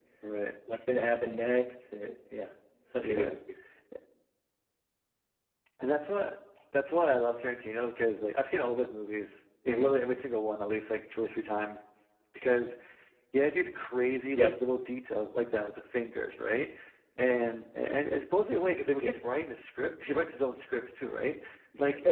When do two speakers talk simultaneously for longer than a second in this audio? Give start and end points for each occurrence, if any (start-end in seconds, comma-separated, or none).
none